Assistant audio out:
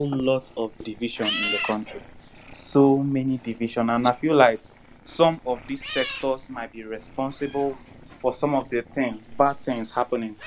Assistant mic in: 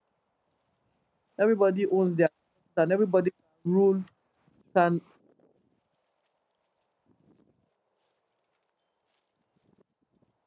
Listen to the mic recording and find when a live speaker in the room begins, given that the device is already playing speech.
1.4 s

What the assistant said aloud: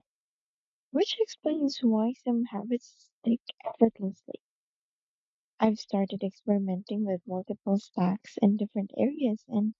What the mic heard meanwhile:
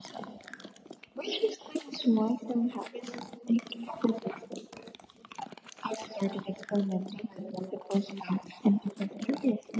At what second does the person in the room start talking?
none

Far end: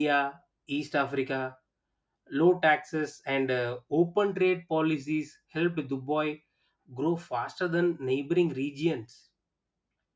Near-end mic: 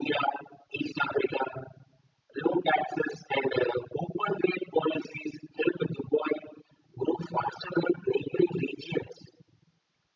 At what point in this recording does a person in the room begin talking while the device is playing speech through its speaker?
none

